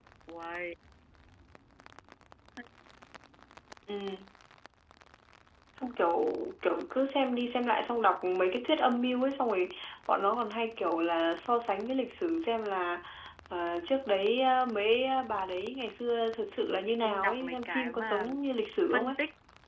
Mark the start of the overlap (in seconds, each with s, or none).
16.7 s